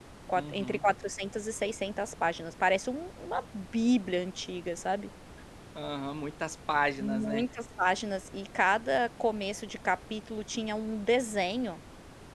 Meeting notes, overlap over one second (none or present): none